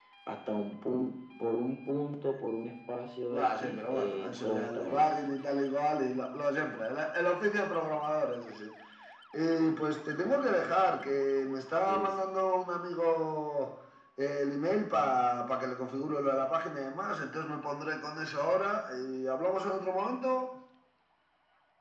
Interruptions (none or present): present